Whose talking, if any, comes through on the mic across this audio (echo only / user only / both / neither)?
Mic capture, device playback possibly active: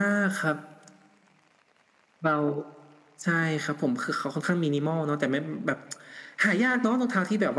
echo only